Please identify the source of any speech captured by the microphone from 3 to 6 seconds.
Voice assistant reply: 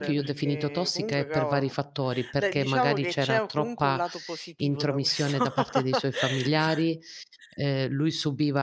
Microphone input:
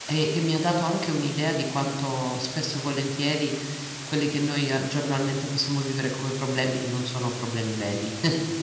user only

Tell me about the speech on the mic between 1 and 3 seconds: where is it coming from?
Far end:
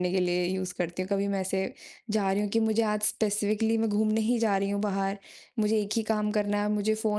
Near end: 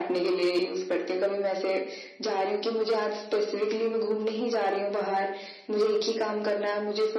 echo only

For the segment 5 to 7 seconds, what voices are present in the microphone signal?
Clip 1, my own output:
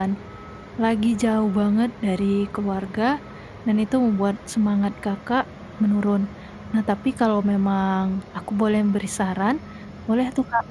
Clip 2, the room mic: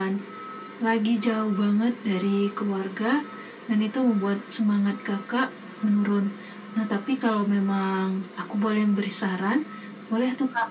echo only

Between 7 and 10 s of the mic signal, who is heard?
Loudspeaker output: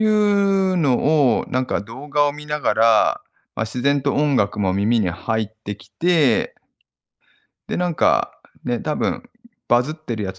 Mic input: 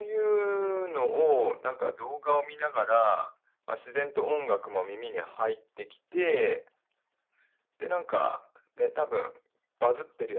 echo only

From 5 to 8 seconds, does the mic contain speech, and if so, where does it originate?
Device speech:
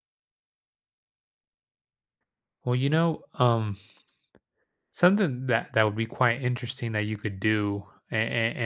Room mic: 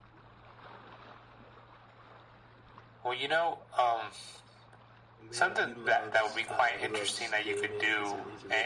both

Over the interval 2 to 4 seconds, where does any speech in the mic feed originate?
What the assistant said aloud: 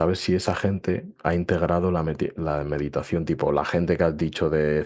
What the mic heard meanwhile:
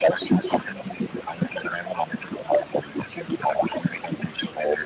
echo only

